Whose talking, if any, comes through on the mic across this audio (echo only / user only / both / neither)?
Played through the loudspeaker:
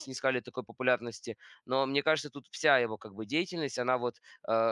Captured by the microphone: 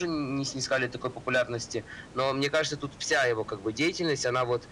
echo only